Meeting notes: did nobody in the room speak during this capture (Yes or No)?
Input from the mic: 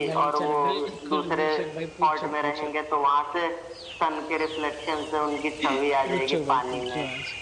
No